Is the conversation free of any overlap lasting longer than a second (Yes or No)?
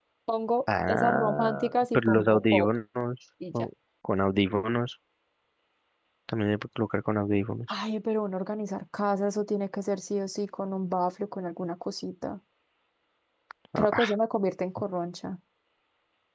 No